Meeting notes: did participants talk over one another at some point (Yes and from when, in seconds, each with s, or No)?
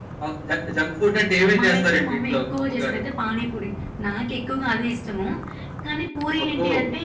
Yes, from 1.6 s